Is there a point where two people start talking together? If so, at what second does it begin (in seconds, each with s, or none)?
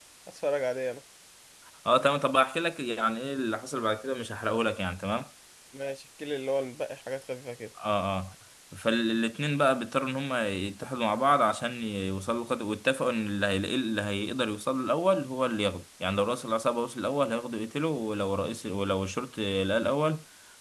none